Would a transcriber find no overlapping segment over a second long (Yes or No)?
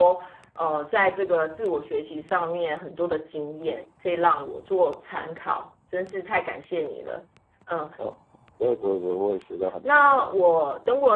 Yes